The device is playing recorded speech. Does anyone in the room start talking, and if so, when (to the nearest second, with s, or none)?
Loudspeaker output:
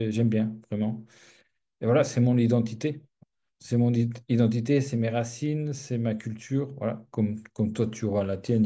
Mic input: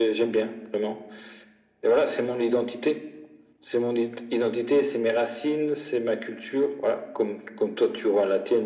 none